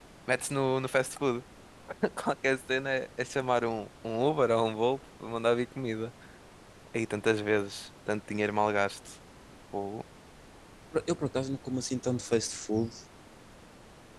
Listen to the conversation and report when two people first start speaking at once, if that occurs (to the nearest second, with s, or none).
none